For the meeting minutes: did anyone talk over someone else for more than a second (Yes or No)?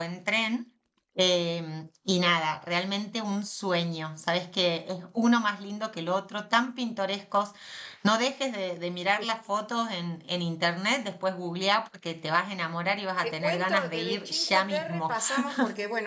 Yes